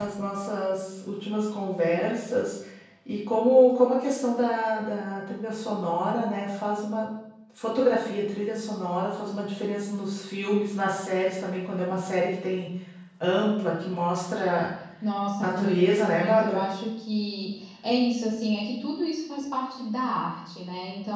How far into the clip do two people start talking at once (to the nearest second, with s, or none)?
15 s